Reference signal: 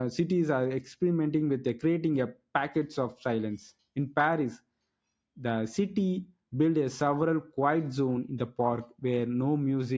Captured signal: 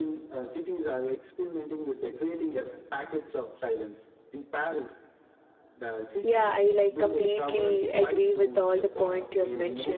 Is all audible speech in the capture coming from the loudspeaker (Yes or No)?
No